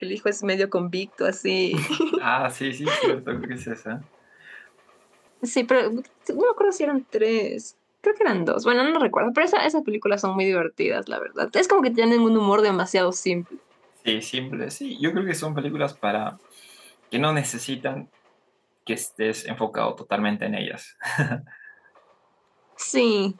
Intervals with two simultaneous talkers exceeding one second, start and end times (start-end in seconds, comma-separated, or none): none